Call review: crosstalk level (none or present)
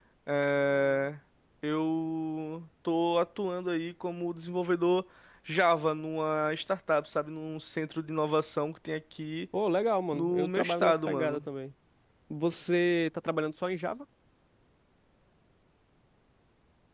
present